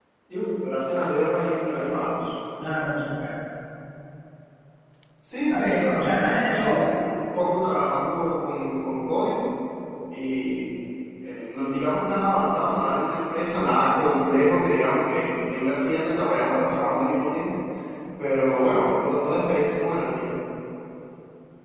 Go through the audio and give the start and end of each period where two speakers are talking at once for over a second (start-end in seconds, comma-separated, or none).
5.5-6.9